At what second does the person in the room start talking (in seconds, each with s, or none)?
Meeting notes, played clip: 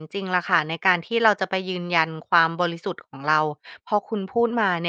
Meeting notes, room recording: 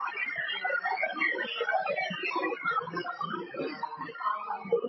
none